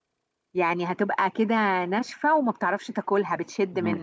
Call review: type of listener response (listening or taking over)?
taking over